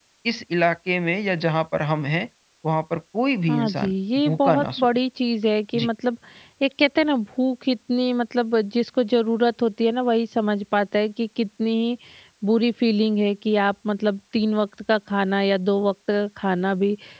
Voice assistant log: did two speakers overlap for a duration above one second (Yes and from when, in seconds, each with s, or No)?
Yes, from 3.5 s